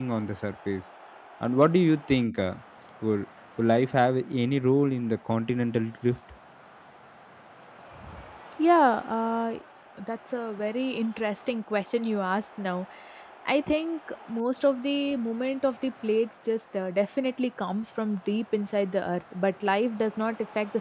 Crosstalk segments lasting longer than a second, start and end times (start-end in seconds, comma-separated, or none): none